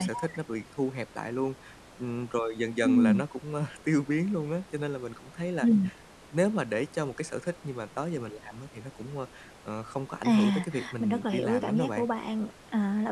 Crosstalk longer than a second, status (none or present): present